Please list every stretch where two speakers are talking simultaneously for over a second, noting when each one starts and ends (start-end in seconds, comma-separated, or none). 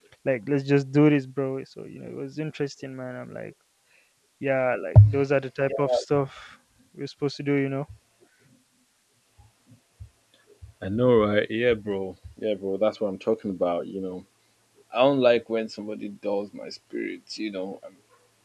none